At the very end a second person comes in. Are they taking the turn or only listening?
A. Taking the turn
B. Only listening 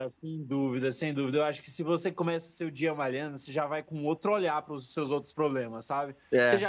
B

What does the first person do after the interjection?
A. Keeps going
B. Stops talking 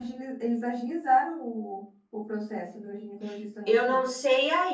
B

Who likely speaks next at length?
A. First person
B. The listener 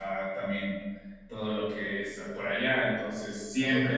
A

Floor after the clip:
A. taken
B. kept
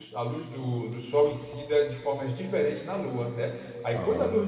B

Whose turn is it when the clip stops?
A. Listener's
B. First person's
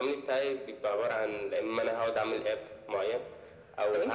B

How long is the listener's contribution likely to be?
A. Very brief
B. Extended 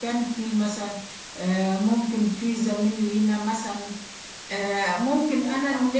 A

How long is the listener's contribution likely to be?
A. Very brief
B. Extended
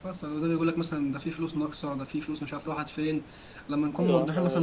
A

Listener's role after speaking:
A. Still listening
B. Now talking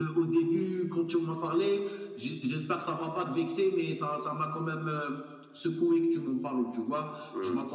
A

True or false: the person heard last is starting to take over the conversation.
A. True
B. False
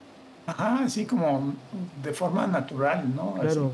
A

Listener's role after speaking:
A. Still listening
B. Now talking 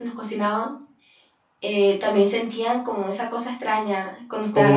B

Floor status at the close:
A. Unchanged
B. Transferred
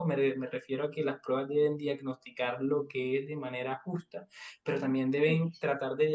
A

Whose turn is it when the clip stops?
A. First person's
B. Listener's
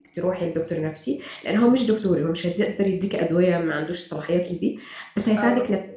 A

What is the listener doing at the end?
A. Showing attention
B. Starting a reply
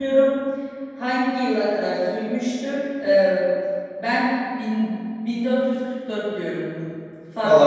B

